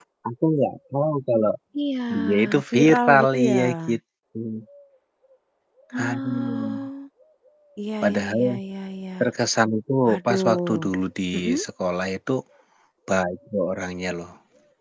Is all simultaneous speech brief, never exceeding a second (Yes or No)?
No